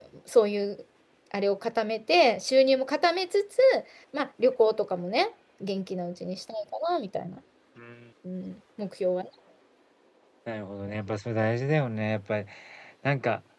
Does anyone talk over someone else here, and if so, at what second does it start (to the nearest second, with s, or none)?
none